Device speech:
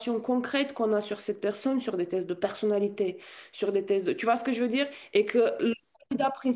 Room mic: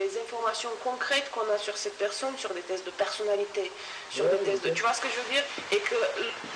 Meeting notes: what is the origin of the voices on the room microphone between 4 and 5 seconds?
both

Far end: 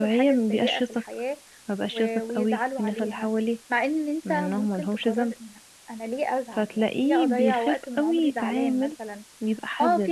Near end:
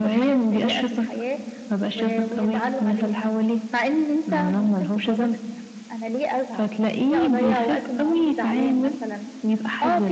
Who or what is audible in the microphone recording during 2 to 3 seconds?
echo only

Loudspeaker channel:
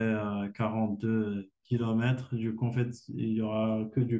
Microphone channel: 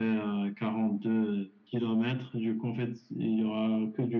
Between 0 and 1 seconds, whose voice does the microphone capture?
echo only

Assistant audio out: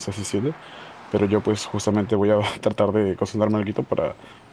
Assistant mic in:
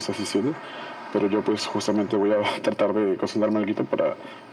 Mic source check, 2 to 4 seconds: echo only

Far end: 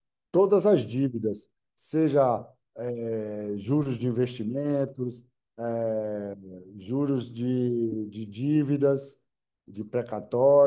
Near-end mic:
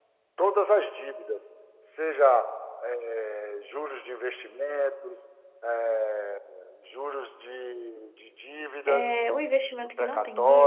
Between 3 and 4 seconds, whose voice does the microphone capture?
echo only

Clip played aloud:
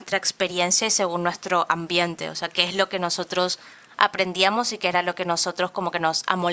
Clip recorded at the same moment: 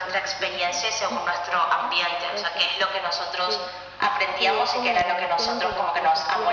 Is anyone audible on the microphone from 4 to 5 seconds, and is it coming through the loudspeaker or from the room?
both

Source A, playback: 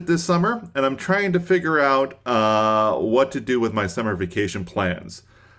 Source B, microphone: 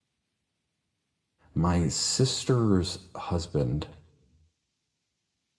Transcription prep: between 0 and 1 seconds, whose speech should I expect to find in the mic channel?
neither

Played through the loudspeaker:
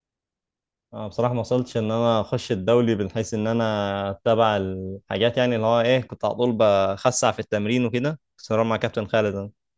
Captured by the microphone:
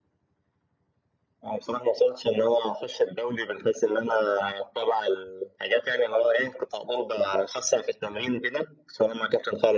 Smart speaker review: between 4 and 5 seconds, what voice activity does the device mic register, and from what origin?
echo only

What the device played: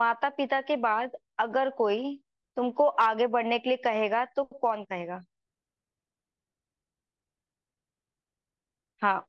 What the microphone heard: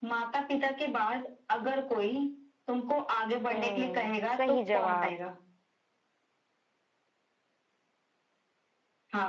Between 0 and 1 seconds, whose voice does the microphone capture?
echo only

